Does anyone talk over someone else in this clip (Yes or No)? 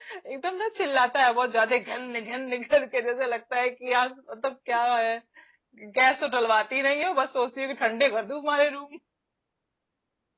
No